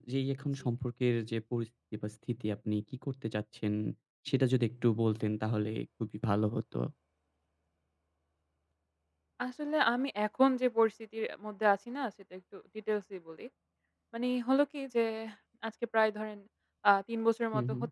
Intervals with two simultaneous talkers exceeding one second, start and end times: none

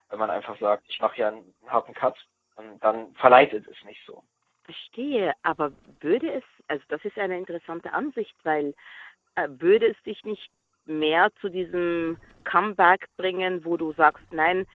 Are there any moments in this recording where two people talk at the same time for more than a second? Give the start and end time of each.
none

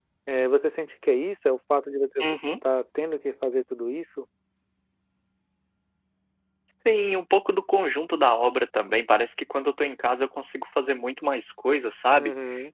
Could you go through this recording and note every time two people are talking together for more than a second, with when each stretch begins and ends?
none

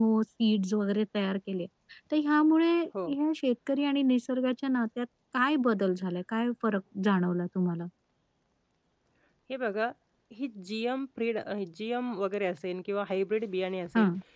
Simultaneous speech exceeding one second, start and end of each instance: none

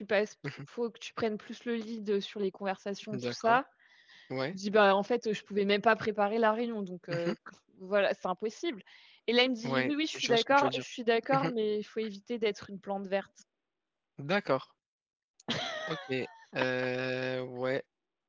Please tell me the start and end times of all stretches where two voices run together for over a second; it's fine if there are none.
9.6-10.8

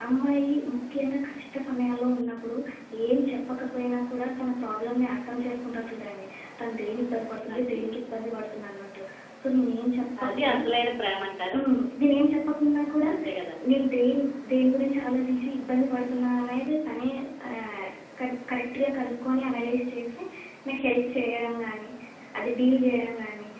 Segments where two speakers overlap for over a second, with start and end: none

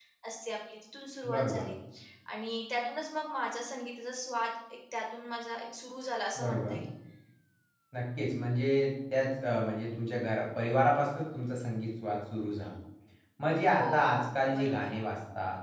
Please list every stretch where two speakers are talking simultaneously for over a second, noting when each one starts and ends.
13.7-14.9

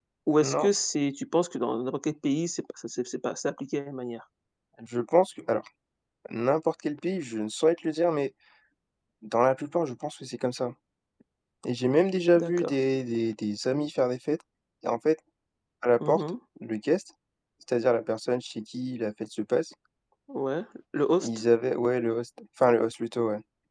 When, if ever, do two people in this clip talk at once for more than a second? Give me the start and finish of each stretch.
none

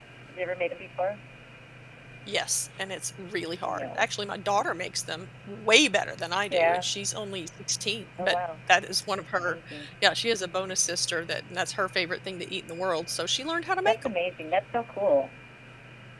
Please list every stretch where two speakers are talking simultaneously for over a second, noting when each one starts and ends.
none

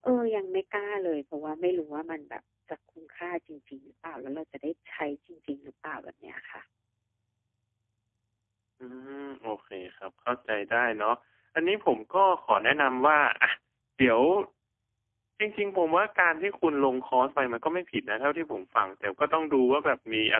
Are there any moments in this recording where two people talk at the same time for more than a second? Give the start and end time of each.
none

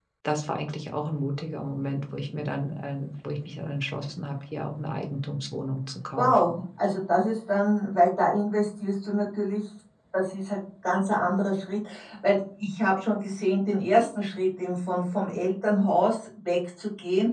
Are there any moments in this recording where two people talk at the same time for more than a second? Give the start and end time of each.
none

